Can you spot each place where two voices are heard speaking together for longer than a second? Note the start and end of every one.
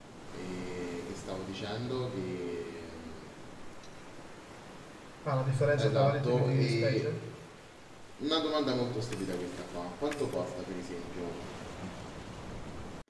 5.8-7.2

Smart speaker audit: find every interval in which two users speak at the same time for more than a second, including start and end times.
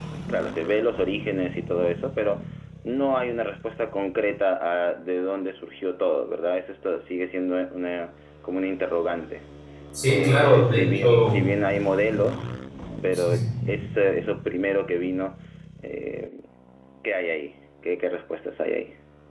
10.1-11.4

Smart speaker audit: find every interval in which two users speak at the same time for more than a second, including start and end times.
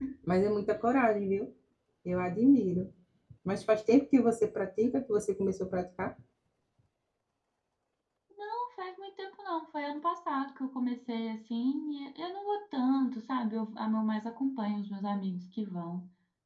none

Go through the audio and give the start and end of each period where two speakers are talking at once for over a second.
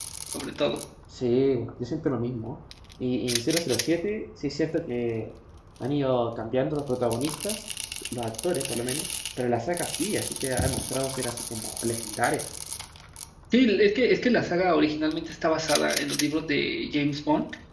none

